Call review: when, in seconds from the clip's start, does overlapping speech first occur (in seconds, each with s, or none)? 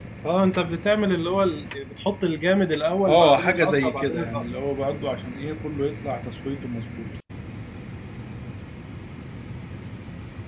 3.1 s